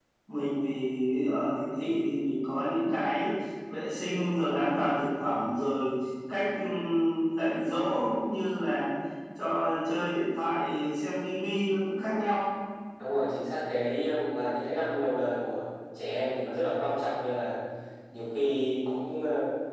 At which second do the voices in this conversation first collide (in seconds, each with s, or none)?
none